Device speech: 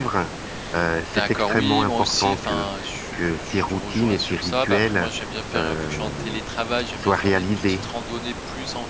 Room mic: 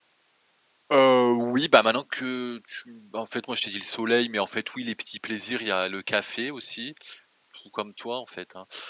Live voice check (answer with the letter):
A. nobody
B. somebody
B